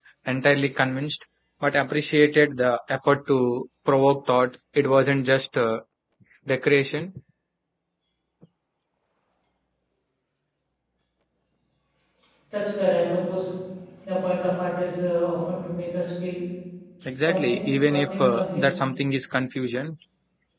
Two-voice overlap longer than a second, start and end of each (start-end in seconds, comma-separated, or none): 17.2-18.7